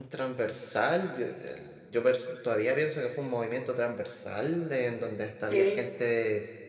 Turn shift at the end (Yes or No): No